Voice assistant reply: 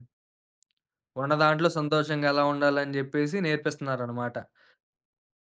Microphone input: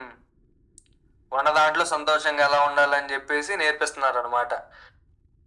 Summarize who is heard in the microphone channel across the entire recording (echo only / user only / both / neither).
echo only